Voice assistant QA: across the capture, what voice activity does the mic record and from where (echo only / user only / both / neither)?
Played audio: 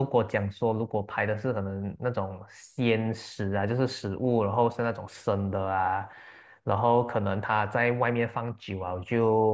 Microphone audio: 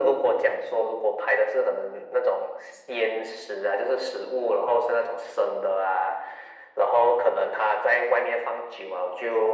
echo only